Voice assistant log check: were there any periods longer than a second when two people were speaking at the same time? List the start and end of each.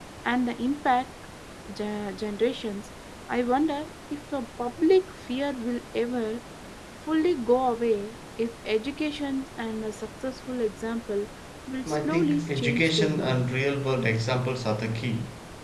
11.8-13.5

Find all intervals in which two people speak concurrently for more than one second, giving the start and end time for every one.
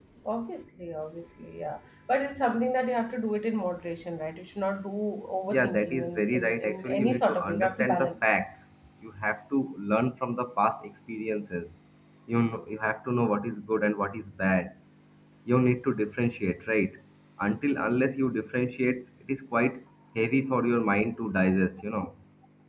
5.5-8.1

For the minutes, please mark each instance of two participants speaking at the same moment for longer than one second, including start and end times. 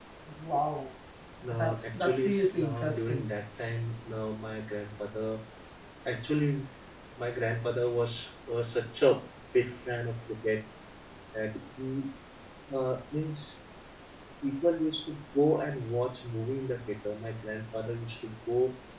1.5-3.2

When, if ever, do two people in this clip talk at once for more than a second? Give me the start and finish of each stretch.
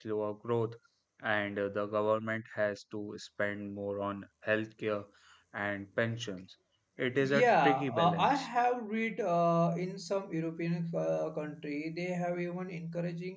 7.2-8.5

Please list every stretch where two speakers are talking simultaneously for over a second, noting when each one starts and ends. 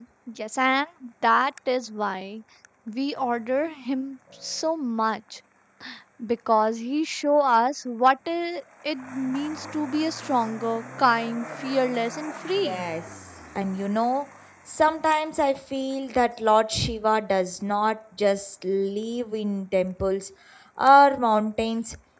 none

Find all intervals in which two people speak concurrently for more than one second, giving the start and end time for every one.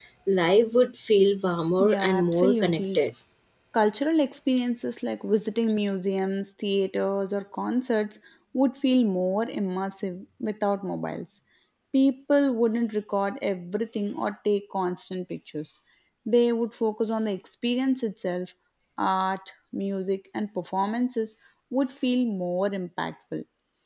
1.8-3.0

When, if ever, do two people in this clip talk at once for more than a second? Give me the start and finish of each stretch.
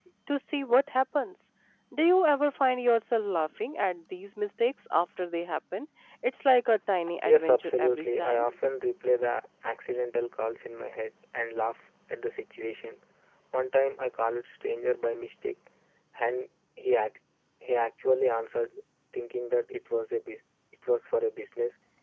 7.2-8.4

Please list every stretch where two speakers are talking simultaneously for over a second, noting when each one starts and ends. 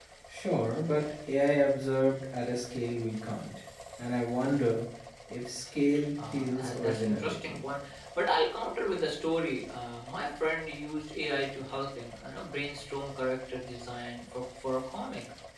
6.3-7.7

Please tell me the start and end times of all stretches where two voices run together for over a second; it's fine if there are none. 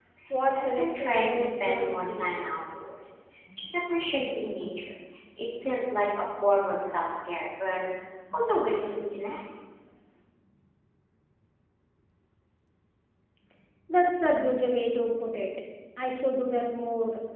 0.5-2.3

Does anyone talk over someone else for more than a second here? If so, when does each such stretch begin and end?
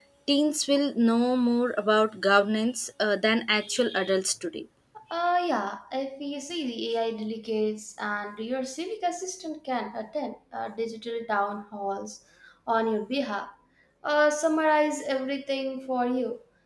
none

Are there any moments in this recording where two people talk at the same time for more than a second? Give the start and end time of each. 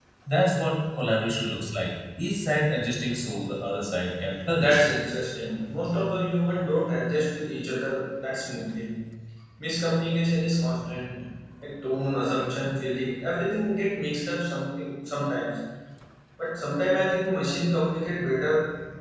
none

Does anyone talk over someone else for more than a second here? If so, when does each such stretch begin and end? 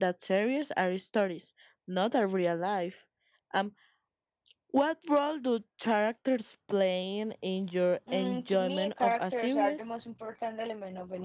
8.1-9.8

